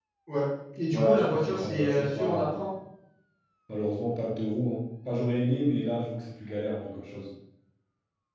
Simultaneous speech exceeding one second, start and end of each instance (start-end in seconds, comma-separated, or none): 0.9-2.6